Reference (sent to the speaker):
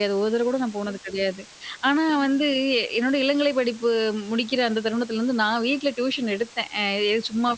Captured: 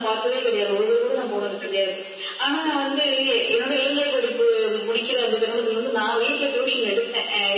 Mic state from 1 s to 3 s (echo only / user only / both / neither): echo only